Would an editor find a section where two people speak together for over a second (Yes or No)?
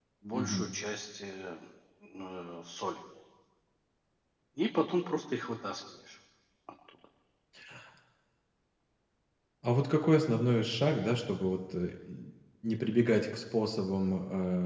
No